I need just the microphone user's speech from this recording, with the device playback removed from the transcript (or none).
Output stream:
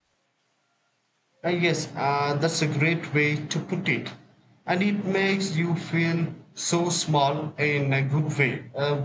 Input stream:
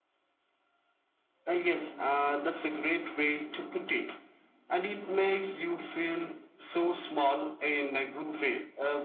none